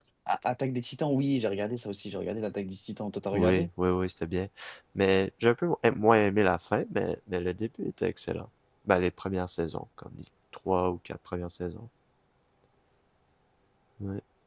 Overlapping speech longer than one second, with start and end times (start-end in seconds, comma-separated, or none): none